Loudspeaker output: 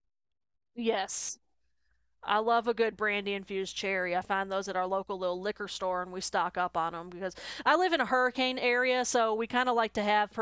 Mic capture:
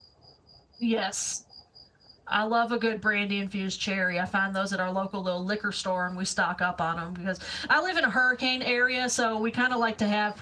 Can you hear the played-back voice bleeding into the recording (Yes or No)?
Yes